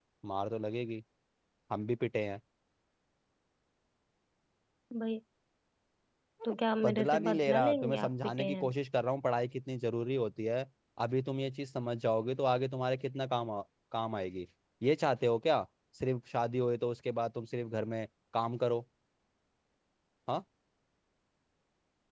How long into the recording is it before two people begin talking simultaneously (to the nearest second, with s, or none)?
7 s